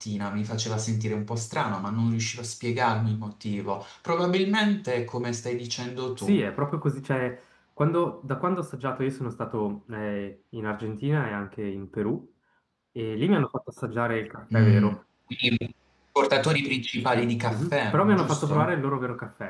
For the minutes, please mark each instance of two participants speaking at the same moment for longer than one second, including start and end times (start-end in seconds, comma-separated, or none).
17.1-18.8